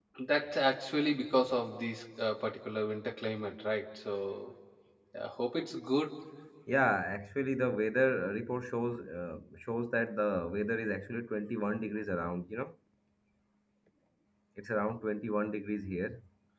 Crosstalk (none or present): none